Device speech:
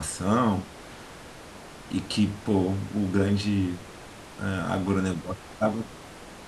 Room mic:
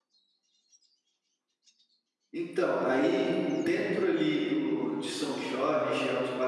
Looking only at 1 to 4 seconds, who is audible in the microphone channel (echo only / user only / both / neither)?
user only